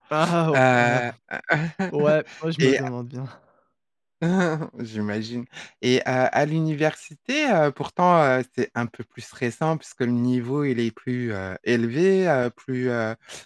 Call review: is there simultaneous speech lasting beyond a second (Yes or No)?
No